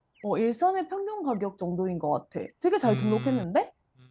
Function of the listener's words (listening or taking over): taking over